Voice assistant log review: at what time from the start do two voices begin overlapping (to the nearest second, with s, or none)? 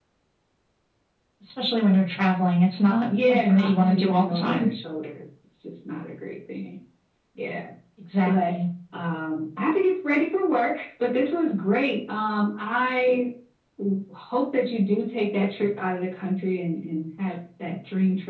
3 s